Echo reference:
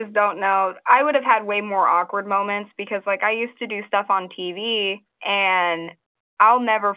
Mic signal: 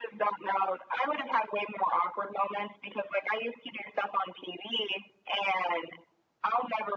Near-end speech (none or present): none